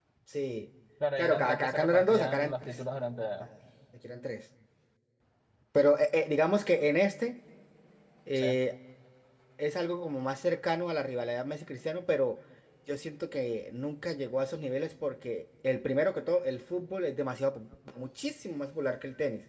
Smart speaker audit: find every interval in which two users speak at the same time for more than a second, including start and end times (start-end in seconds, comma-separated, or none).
1.2-2.8